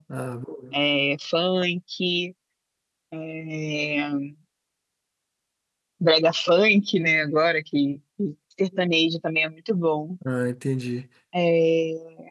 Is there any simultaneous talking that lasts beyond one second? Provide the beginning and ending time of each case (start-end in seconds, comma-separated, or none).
none